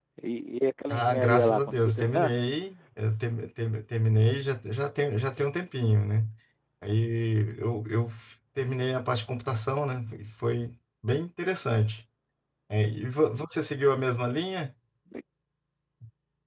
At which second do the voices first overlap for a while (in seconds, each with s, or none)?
0.9 s